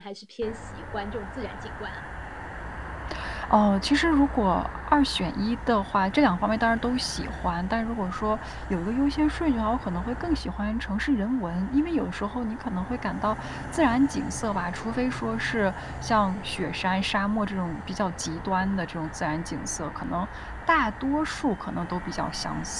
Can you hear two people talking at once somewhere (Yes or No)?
No